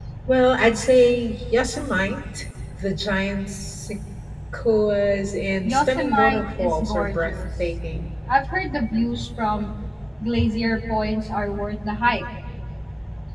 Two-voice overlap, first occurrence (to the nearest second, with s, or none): 6 s